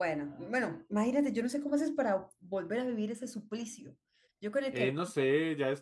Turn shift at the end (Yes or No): Yes